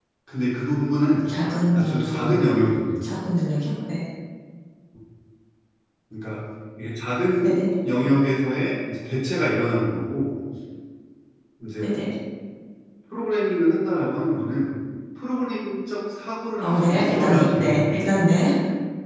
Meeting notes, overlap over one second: present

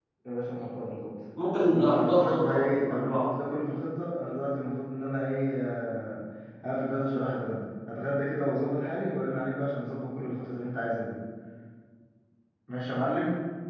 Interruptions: present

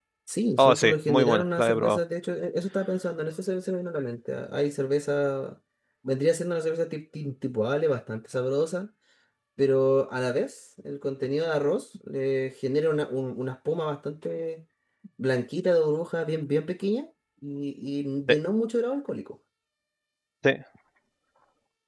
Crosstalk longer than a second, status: present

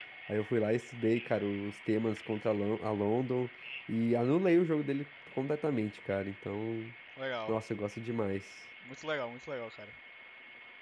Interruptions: none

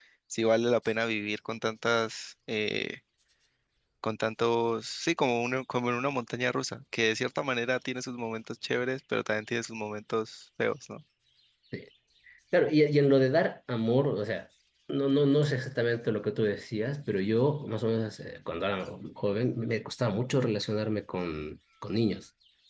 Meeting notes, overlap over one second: none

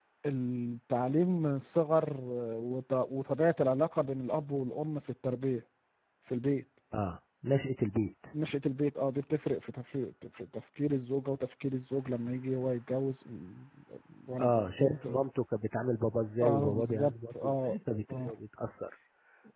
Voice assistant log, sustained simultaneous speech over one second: present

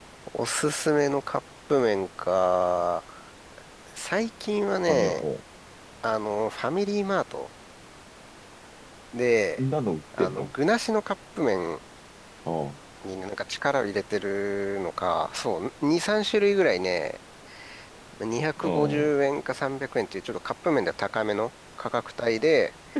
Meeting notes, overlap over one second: none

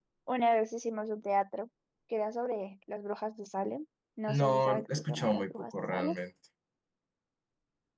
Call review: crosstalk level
present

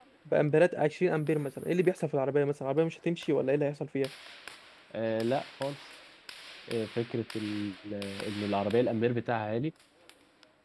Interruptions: none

